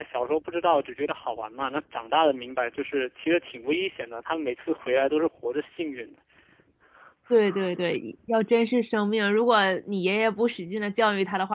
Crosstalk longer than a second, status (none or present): none